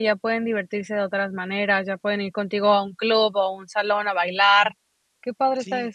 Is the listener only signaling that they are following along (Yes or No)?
No